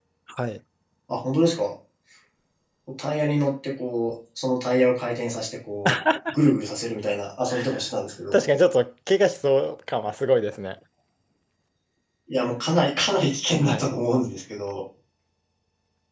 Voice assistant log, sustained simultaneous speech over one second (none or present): none